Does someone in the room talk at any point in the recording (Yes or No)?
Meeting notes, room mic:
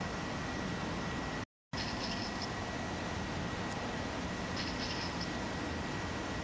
No